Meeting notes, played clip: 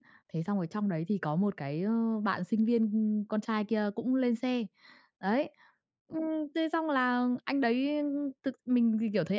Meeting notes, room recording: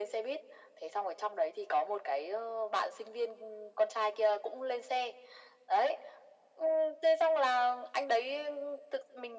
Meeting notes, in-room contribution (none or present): none